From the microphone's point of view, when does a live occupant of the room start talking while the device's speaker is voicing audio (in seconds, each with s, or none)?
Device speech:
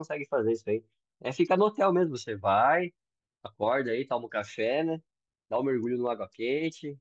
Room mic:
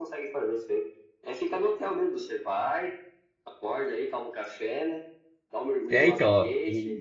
5.9 s